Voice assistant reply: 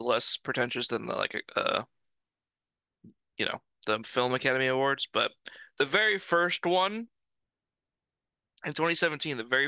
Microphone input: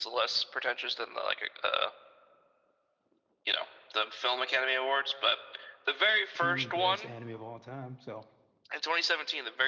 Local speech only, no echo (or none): two best anime of all time. So